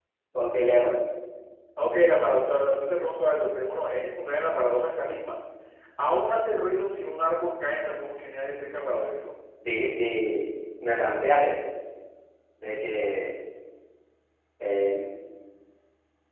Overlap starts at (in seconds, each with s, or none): none